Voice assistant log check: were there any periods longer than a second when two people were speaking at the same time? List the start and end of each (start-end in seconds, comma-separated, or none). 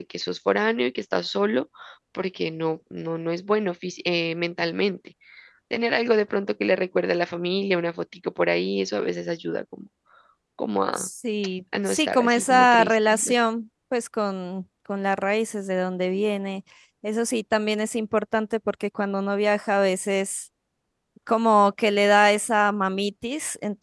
11.8-13.3